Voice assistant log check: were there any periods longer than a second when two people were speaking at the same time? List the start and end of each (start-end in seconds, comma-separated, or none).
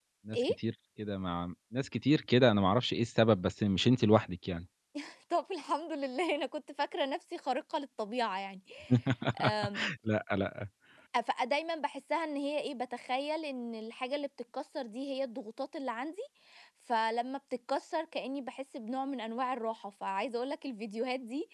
none